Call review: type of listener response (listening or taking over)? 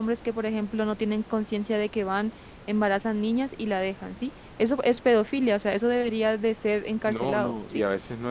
taking over